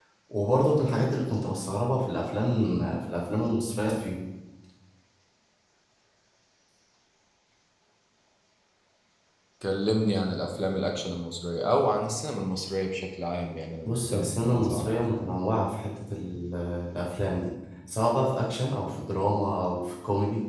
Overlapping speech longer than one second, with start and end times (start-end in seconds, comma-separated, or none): 13.8-15.3